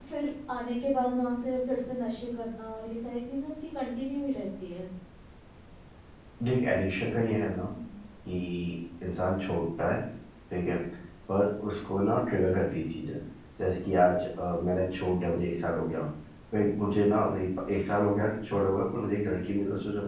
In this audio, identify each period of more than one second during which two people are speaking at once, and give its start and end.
none

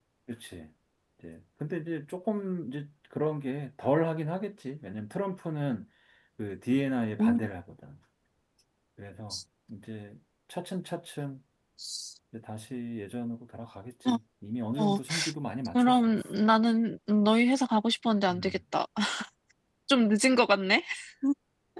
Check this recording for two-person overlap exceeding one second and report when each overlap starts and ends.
none

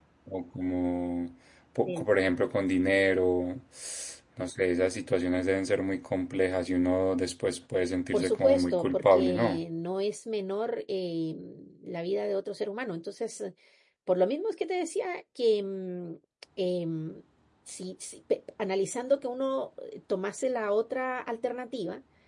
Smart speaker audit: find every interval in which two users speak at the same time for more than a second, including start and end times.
8.1-9.6

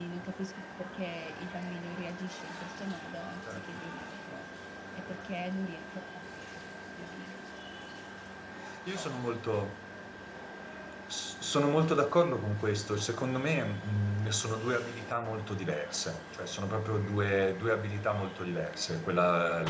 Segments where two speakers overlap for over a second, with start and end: none

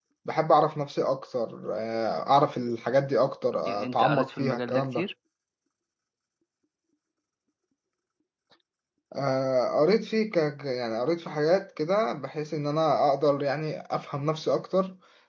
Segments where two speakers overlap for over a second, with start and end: 3.7-5.1

